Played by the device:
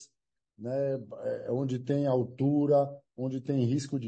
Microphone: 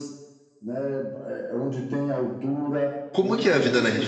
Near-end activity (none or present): present